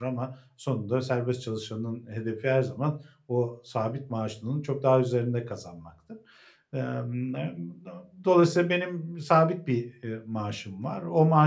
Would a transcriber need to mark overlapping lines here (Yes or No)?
No